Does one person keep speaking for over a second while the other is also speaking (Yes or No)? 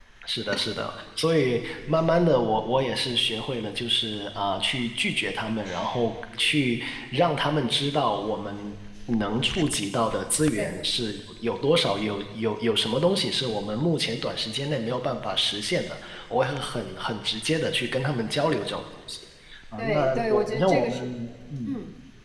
Yes